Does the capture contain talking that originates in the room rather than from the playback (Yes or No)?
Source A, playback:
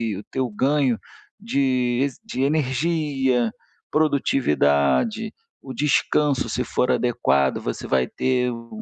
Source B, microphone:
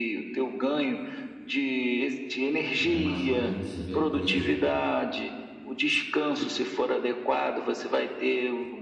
Yes